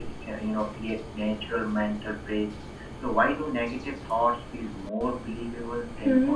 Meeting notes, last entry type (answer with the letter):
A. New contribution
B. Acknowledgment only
A